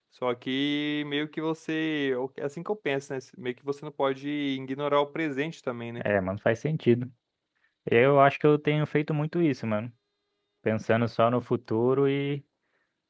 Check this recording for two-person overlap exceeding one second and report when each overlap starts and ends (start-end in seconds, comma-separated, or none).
none